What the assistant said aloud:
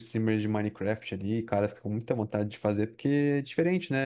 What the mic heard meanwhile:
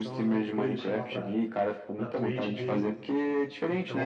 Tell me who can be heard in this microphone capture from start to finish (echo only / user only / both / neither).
both